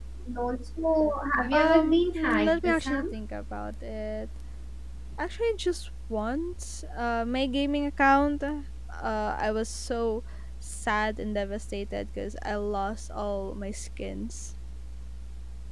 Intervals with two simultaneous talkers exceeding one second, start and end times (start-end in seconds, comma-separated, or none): 1.5-3.1